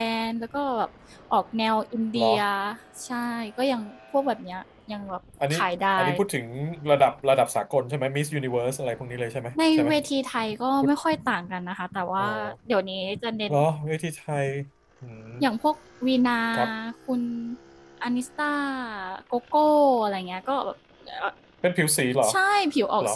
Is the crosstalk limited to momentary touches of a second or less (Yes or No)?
Yes